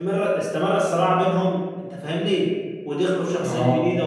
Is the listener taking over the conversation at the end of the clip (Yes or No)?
No